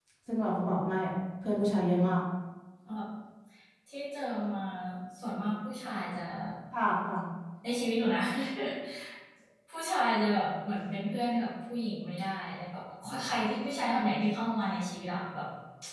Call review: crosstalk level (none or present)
none